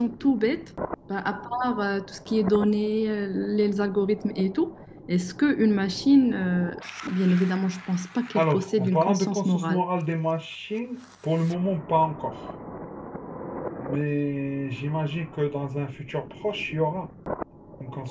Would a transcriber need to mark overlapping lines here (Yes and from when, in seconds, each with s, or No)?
Yes, from 8.4 s